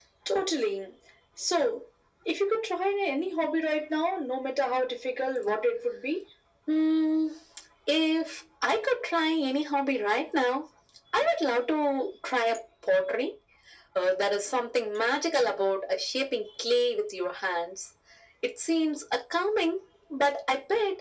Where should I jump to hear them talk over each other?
none

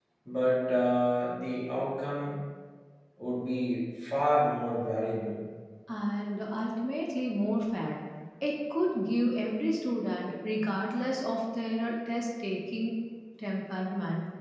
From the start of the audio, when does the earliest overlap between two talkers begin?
none

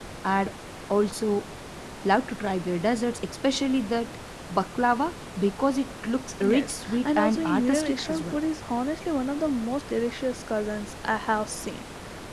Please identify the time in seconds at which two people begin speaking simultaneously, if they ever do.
6.4 s

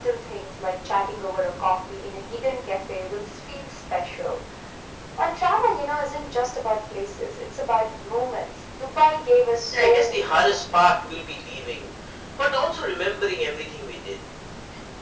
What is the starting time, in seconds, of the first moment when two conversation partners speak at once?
9.7 s

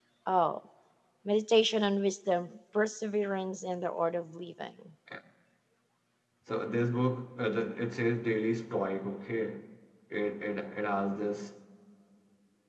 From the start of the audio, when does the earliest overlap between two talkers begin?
none

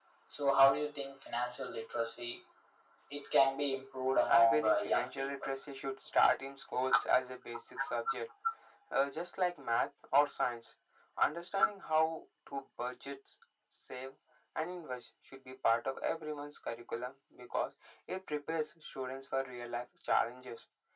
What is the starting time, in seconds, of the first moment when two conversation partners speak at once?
4.3 s

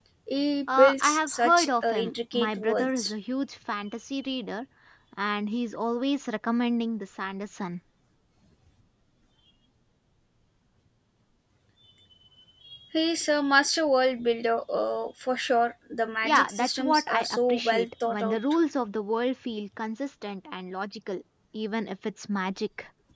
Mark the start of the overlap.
0.8 s

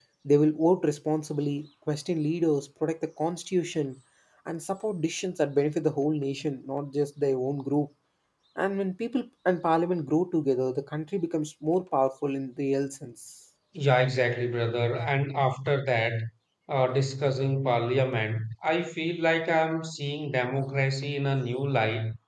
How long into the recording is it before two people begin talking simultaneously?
none

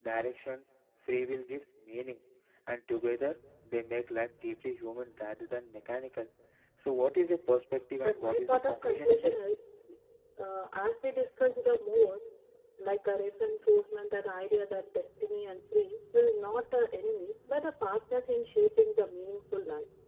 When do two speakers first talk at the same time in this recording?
8.0 s

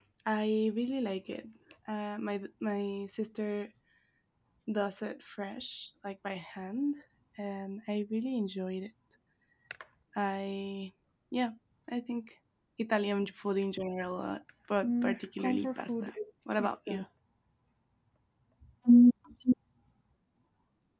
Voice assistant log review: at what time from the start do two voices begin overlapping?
14.8 s

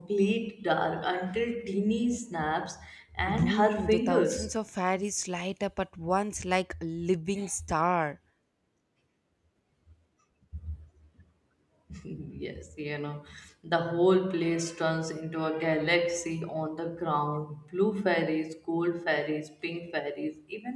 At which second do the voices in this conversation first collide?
3.3 s

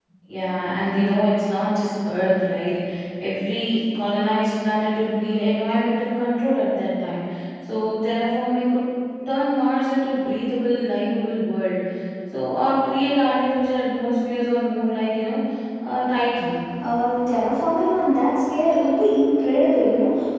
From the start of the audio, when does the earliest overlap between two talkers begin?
none

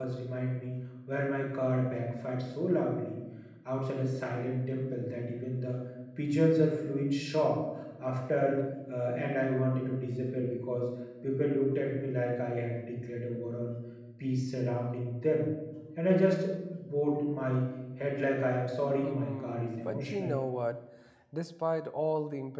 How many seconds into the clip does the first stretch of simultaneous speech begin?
19.0 s

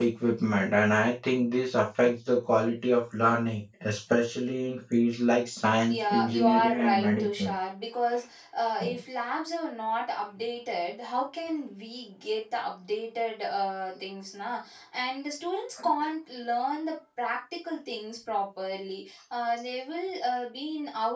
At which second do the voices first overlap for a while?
5.9 s

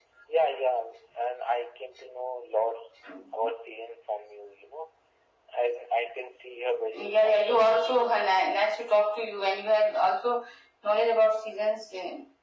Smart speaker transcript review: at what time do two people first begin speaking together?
7.0 s

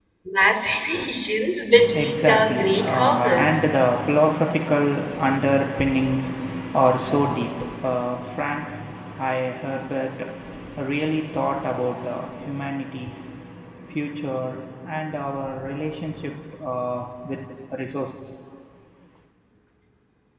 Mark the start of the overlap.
1.7 s

